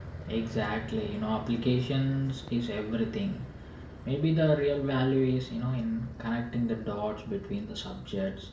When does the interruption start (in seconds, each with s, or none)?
none